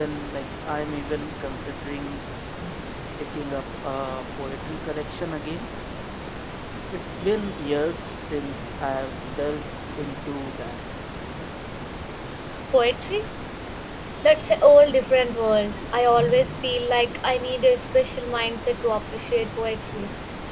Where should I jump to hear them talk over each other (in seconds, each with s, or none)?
none